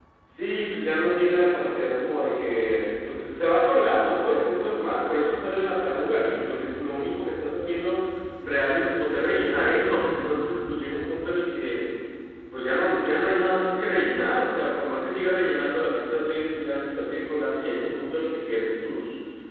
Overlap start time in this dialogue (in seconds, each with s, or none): none